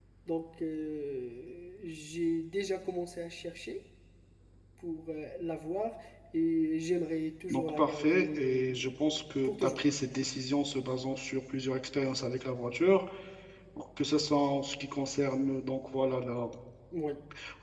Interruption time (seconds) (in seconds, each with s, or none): 7.5 s